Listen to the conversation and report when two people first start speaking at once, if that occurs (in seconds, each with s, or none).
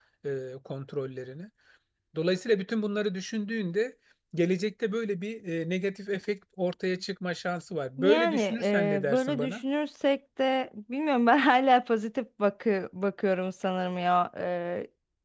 8.0 s